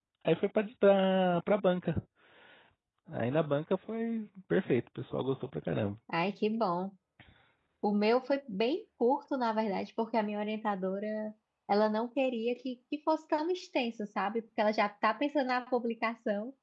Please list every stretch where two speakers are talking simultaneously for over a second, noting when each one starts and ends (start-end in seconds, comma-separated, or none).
none